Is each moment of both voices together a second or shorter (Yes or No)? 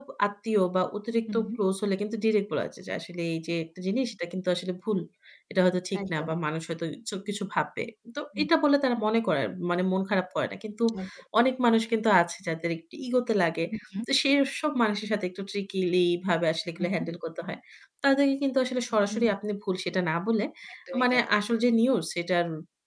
Yes